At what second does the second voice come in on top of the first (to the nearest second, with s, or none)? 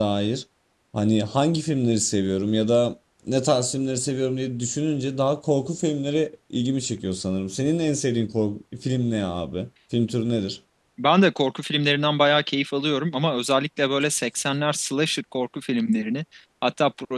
none